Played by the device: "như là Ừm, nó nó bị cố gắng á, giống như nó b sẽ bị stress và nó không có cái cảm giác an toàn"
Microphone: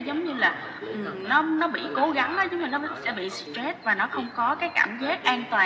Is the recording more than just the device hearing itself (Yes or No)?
Yes